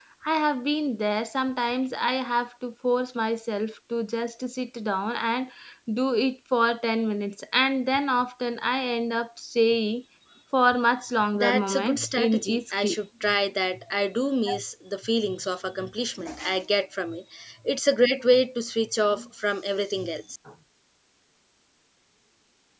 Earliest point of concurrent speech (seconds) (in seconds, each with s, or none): 11.3 s